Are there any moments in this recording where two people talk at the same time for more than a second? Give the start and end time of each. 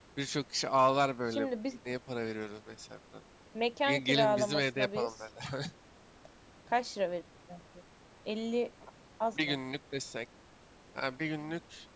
3.9-5.1

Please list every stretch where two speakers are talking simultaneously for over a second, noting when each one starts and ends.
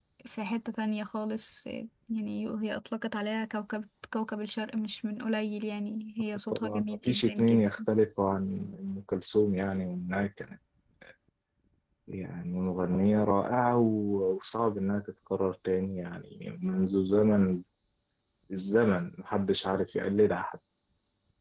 6.5-7.8

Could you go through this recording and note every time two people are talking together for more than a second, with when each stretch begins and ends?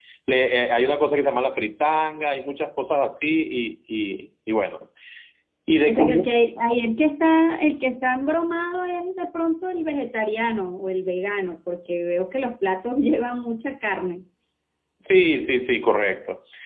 none

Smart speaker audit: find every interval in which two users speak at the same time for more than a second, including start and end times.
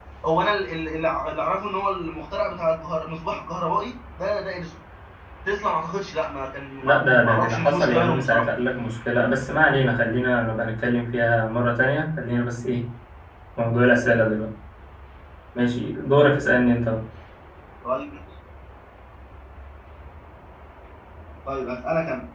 6.8-8.5

